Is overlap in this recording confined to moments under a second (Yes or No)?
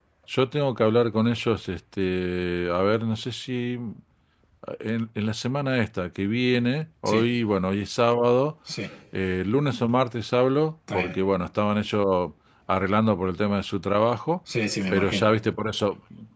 Yes